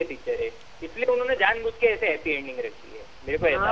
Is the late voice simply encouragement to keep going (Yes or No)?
No